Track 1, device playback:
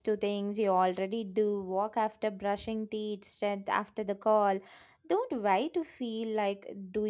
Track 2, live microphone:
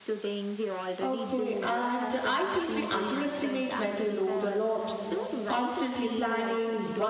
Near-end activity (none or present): present